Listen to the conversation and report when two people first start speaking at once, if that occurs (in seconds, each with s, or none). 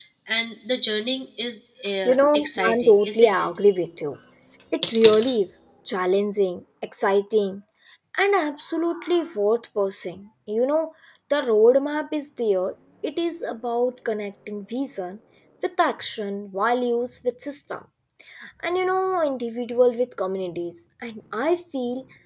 2.0 s